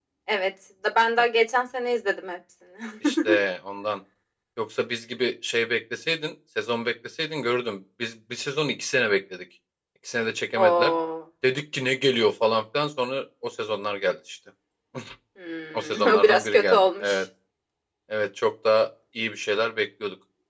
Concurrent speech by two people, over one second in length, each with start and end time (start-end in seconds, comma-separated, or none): 15.7-17.2